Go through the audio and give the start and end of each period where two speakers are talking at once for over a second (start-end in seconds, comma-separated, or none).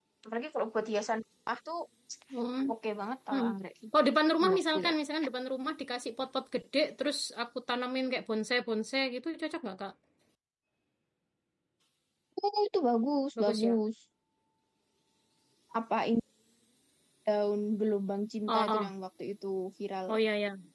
none